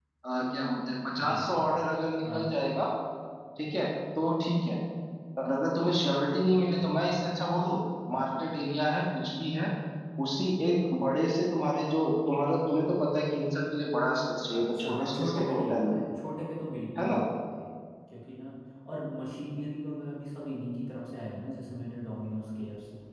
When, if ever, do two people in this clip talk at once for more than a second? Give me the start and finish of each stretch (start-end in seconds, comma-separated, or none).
14.6-15.9